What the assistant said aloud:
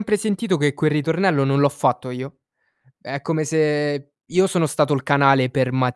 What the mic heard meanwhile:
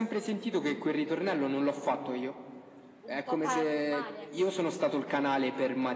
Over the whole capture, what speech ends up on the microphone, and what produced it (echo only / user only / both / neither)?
both